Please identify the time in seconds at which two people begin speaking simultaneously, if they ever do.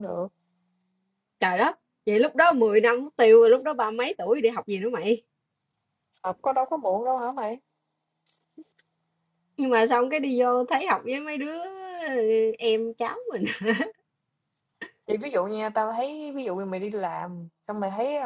none

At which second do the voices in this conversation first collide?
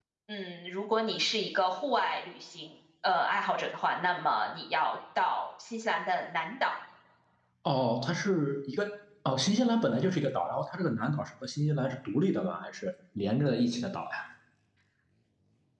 none

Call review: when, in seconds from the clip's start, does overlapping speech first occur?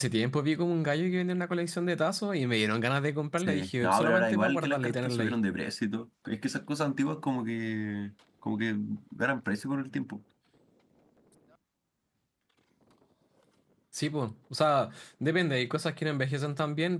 3.4 s

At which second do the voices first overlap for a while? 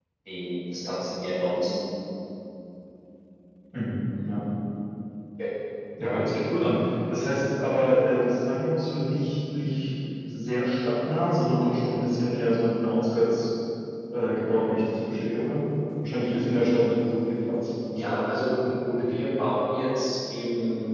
none

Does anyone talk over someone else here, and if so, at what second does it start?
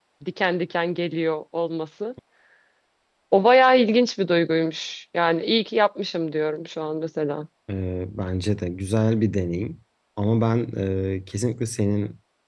none

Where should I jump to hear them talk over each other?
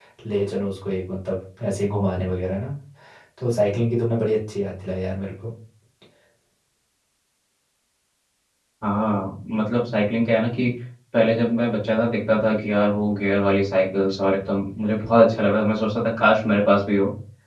none

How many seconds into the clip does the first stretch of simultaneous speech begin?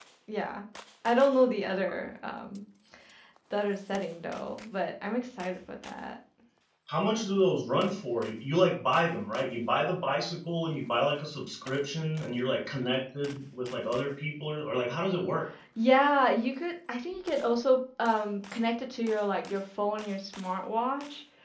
none

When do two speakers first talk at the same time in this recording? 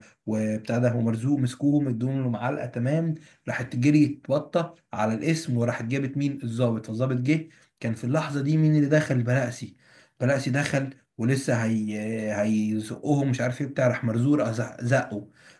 none

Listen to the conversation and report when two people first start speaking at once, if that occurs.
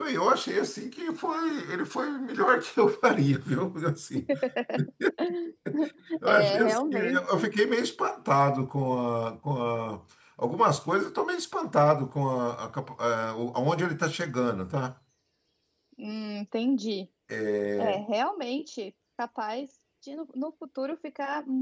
6.3 s

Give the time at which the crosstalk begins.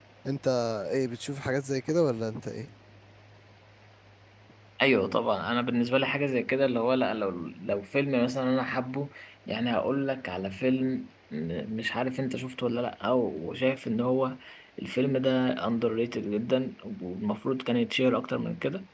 none

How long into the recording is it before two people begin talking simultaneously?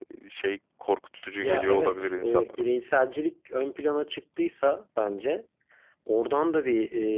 1.4 s

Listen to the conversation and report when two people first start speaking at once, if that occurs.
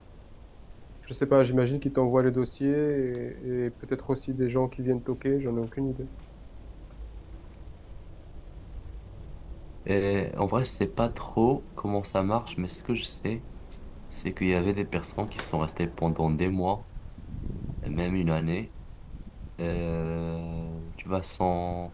none

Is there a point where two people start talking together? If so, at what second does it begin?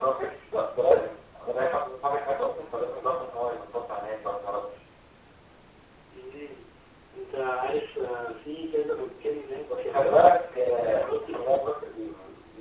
9.7 s

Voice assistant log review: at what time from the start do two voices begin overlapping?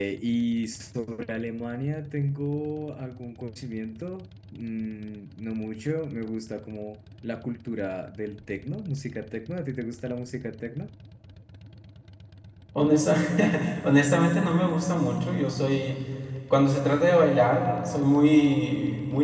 none

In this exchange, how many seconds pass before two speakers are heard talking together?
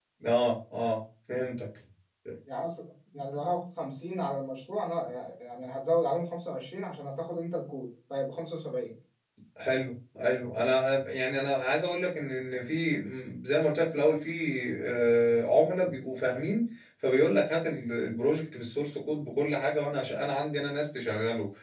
none

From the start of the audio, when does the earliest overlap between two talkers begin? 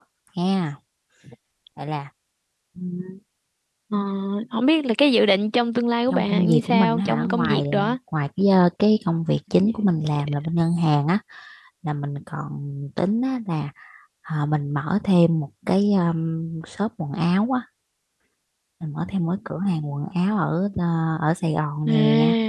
6.1 s

